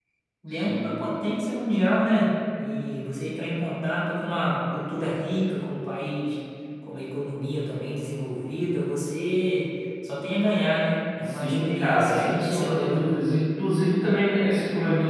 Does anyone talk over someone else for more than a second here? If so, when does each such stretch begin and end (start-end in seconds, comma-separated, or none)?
11.3-13.0